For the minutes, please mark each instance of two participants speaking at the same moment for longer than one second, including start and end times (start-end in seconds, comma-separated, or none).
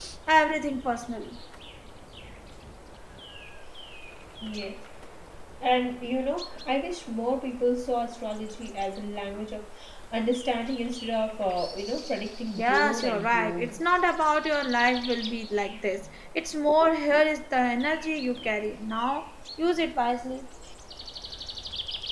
12.6-13.8